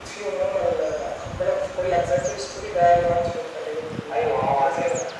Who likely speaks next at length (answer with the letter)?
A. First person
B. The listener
B